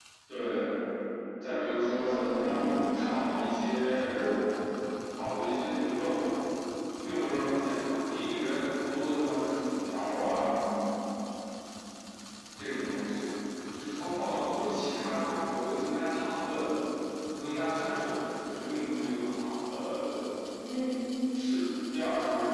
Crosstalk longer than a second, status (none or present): present